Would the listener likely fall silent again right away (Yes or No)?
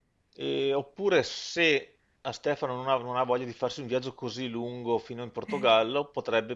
Yes